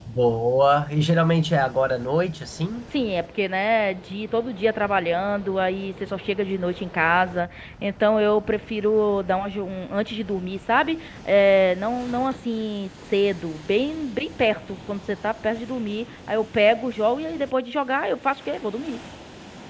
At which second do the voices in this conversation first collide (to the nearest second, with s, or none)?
none